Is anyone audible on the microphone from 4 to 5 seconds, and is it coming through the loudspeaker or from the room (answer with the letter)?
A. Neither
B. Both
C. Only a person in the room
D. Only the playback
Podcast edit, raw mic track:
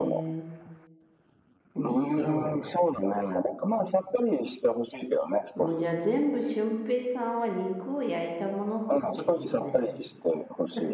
D